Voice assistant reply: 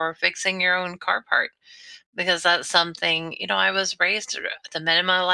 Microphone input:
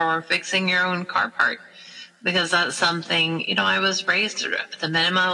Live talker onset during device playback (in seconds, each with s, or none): none